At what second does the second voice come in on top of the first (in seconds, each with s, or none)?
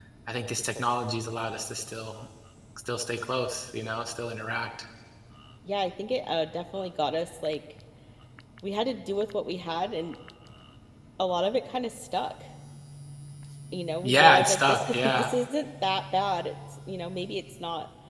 14.0 s